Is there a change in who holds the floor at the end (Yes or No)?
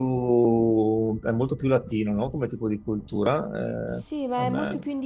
Yes